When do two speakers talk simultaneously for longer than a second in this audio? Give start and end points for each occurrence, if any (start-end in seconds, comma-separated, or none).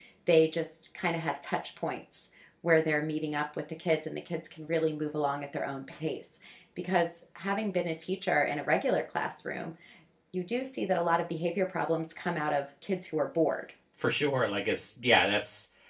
none